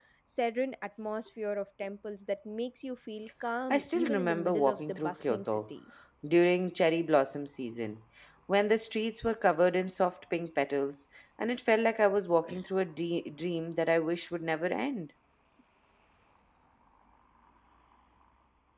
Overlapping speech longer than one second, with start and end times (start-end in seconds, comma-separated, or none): 3.7-5.6